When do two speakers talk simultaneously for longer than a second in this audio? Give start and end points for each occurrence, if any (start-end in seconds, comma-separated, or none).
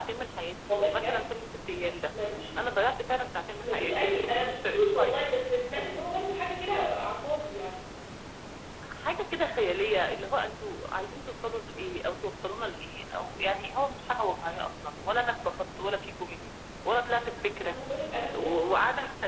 3.6-5.4